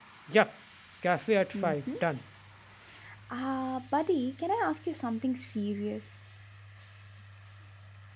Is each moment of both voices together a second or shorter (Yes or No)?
Yes